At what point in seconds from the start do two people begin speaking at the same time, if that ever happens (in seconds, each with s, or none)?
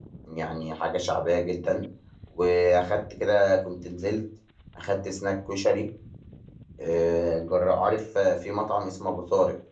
none